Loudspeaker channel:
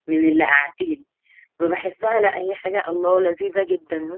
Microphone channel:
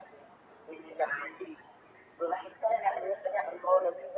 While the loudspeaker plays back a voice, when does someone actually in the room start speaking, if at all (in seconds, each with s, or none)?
none